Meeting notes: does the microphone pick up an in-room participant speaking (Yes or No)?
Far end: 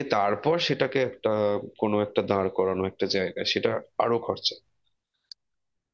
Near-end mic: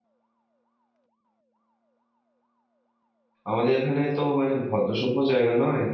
Yes